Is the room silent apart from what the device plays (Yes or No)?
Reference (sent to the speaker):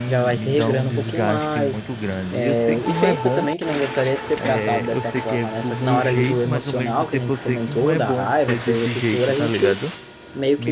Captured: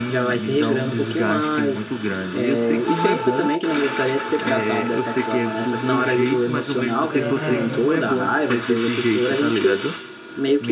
No